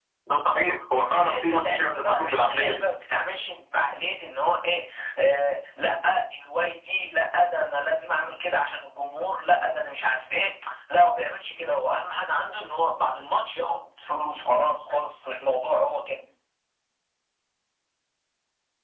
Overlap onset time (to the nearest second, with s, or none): 1 s